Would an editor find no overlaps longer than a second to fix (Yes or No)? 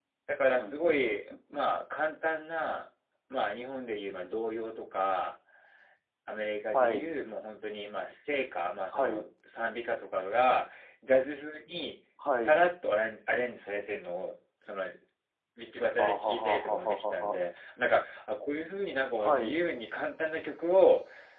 No